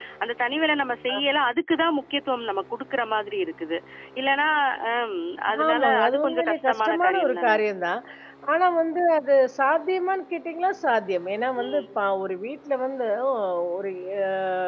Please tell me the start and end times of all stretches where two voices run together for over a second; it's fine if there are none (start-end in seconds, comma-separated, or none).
5.7-7.6